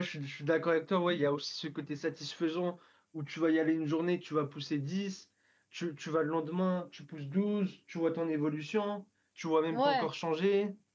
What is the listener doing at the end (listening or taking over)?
listening